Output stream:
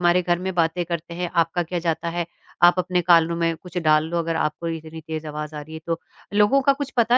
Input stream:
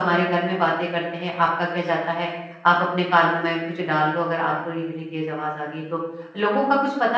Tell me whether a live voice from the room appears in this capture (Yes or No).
No